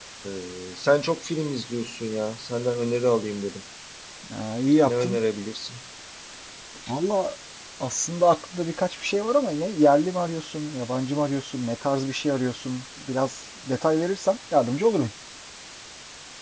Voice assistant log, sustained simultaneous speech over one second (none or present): none